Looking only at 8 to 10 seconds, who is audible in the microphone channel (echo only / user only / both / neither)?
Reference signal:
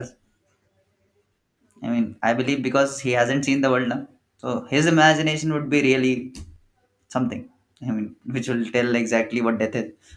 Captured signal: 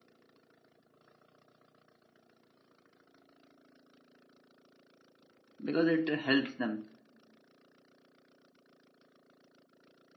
neither